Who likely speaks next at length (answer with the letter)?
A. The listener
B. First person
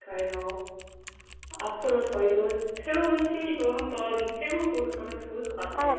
A